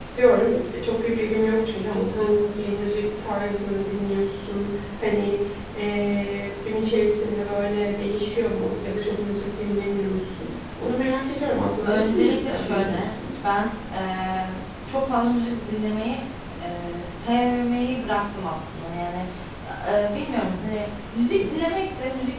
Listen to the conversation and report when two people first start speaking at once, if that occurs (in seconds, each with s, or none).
11.8 s